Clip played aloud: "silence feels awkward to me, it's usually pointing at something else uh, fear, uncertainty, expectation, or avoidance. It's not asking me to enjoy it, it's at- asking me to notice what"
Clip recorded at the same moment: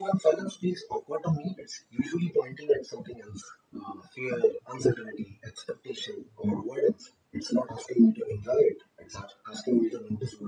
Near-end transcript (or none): none